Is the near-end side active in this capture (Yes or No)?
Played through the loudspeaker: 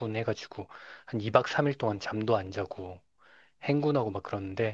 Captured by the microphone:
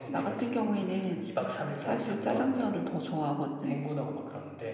Yes